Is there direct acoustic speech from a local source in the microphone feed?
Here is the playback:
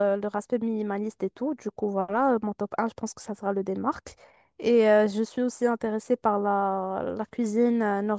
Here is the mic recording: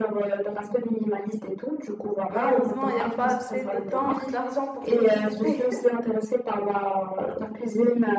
Yes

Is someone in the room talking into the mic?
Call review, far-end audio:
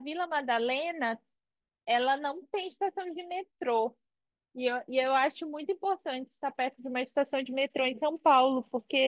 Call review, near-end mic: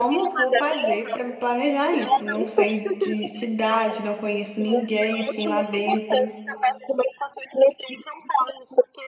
Yes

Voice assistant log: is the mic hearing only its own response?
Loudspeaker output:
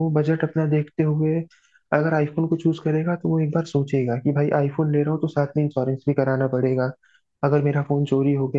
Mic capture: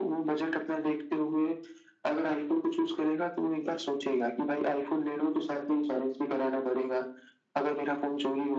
Yes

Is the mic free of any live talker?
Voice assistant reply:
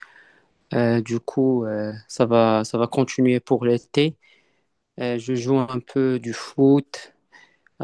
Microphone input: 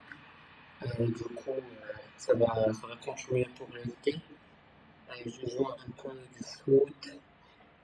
Yes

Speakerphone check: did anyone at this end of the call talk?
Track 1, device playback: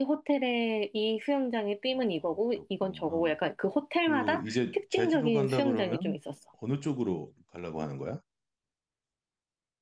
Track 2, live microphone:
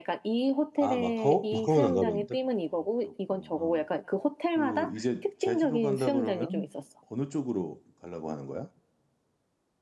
Yes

